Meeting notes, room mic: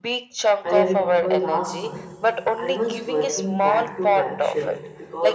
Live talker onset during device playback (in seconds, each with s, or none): 0.6 s